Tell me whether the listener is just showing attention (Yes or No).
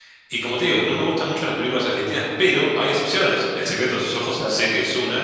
Yes